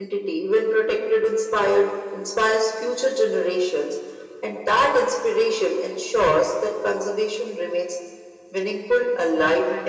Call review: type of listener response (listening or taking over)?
taking over